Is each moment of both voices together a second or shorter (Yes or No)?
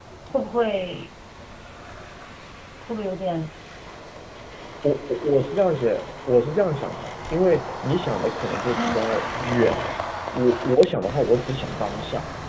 Yes